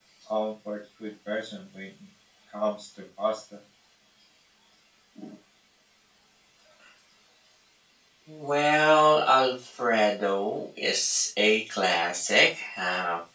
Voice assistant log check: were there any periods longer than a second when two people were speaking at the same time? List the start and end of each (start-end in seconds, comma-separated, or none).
none